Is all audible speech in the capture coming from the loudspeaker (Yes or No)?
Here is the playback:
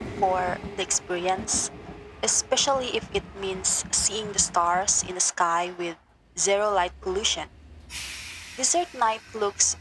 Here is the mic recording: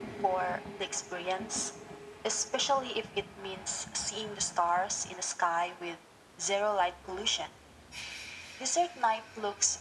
Yes